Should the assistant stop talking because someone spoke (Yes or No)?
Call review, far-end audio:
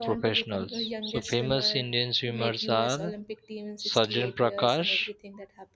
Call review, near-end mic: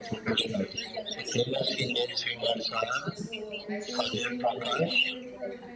Yes